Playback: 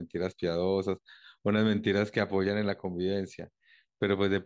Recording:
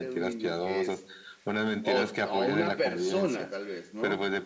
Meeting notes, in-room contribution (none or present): present